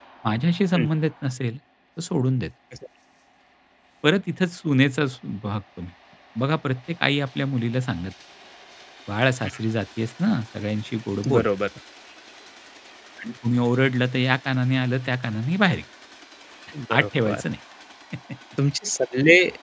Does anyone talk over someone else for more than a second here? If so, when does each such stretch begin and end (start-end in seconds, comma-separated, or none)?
none